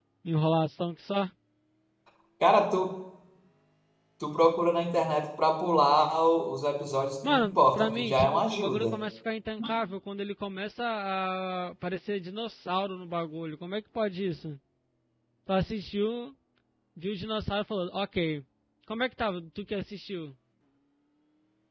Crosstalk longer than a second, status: present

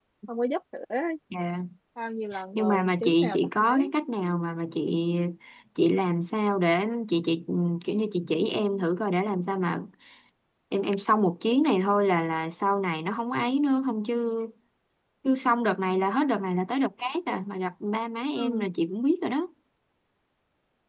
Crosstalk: present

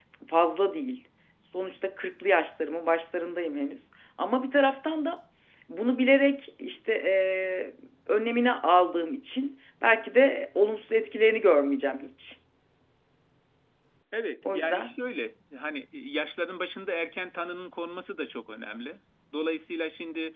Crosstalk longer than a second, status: none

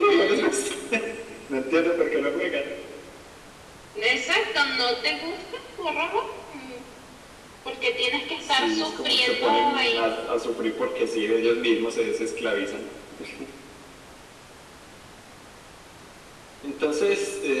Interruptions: present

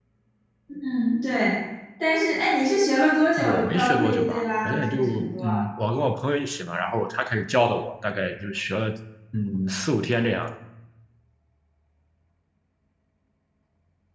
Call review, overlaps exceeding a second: present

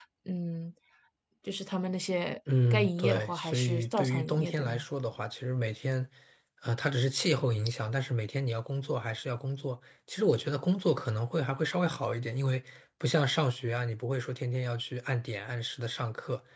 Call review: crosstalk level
present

